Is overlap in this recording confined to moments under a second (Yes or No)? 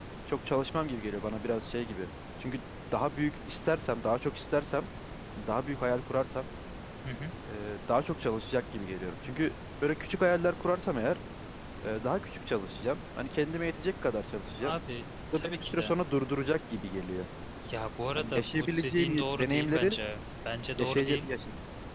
No